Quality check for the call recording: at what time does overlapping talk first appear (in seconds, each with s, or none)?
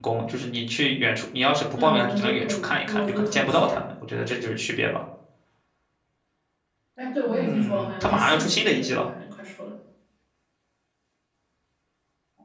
1.8 s